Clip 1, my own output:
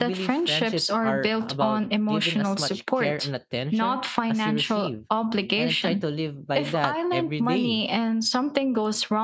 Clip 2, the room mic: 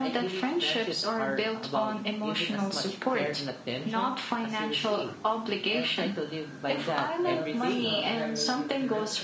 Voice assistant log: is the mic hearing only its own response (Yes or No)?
No